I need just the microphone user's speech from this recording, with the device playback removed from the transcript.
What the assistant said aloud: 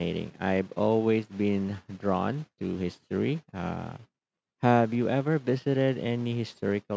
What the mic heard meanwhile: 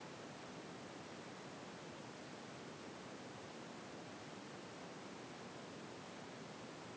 none

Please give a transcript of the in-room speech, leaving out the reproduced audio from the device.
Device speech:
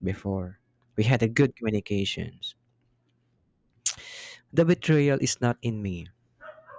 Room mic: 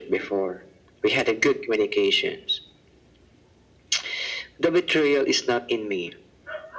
none

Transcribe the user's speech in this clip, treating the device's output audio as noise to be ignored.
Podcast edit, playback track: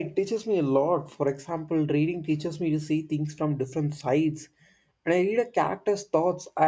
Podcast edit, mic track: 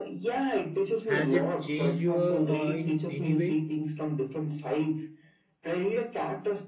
Has it changed you uh, in any way?

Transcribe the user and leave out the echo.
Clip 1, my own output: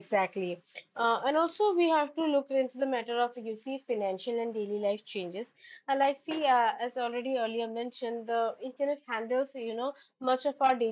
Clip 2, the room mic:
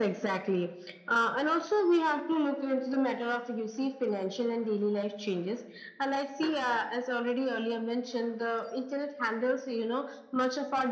none

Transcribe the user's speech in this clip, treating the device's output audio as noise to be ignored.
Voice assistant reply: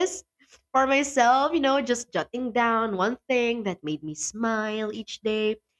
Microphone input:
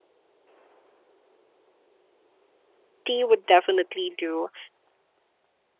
tea would definitely do.

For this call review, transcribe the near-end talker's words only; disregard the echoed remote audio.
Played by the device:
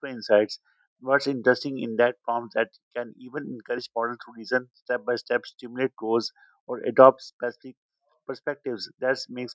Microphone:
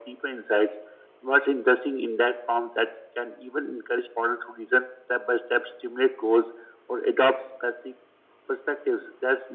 none

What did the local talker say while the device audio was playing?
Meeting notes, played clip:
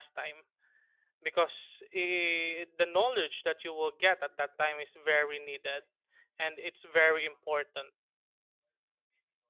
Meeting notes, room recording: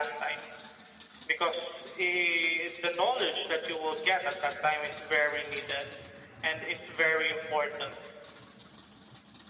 none

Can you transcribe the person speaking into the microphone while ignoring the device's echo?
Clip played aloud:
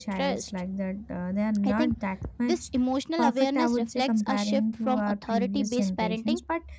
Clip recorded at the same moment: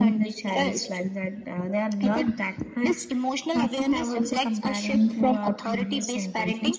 none

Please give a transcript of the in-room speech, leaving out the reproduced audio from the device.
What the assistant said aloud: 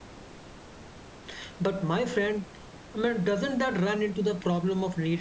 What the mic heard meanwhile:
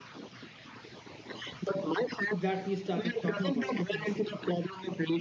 that we started talking about initially

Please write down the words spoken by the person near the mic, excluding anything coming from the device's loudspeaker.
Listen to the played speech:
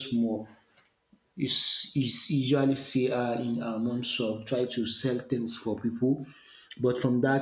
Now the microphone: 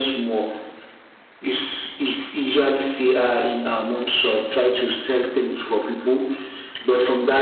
none

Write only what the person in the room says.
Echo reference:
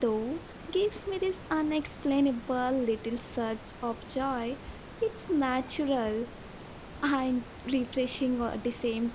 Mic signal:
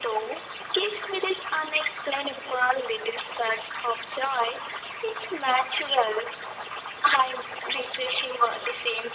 none

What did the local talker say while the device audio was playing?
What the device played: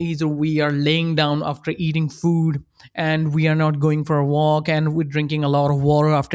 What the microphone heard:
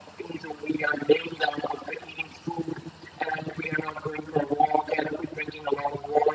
none

